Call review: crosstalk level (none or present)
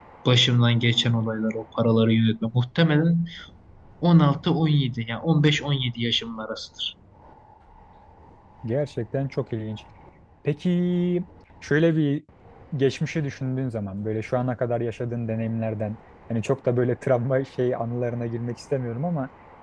none